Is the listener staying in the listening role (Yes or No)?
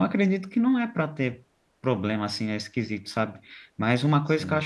Yes